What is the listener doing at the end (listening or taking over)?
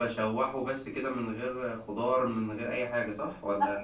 taking over